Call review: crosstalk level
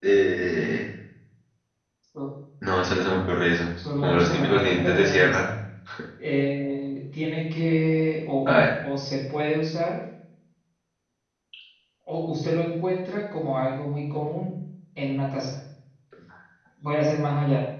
present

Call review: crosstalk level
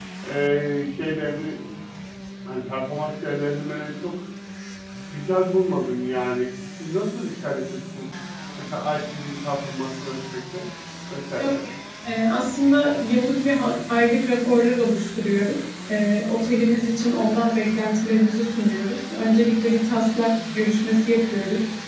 none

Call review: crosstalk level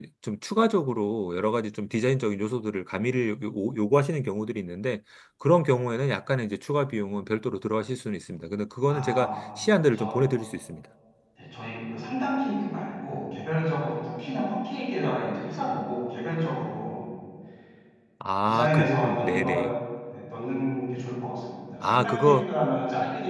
present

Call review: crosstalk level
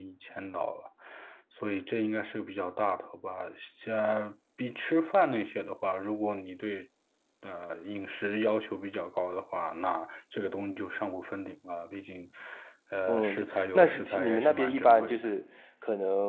present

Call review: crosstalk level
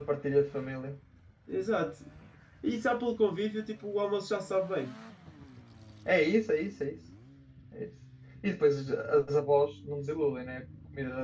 none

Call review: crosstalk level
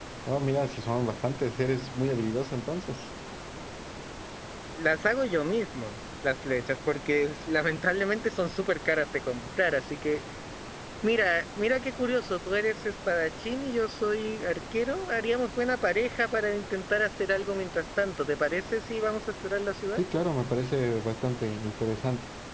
none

